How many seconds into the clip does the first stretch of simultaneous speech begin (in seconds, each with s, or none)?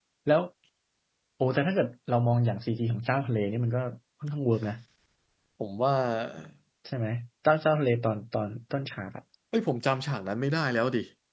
none